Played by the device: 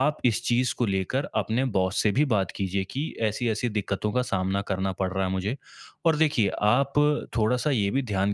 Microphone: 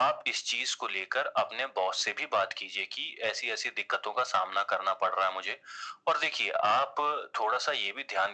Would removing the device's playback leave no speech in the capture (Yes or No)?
Yes